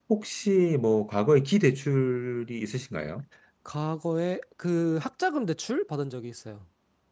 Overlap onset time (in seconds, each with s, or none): none